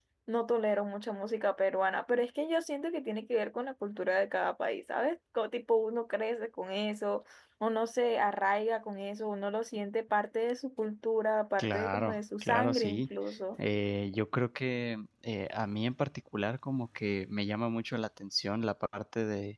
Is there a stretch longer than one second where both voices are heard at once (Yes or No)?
Yes